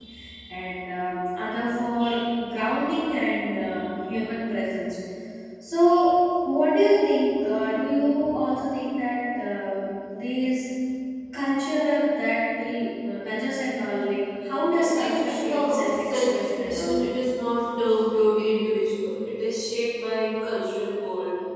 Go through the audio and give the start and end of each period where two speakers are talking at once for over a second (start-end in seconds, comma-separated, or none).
14.7-17.0